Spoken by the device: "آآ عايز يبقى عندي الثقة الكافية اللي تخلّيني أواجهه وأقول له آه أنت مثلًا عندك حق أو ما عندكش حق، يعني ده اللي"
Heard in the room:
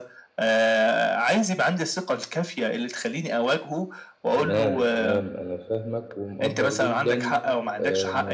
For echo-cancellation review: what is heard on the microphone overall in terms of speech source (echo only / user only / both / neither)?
both